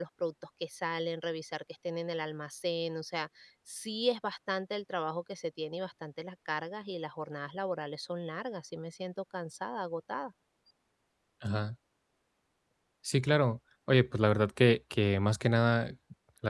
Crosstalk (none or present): none